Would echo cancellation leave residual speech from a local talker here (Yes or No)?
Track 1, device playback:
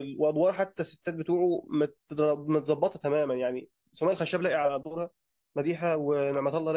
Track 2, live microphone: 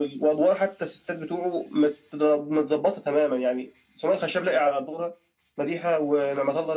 No